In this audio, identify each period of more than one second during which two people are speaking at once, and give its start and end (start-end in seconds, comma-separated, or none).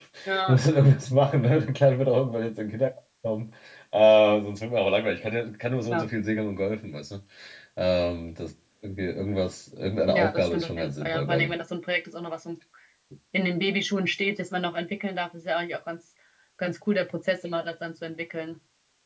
10.1-11.5